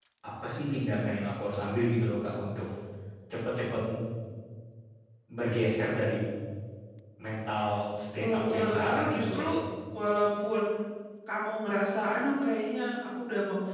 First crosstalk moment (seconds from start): 8 s

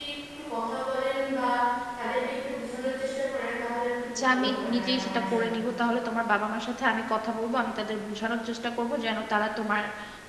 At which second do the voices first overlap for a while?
4 s

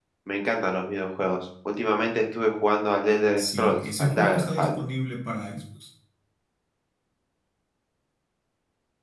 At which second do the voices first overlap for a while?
3 s

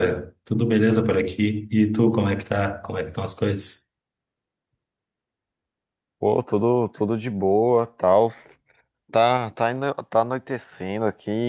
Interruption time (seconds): none

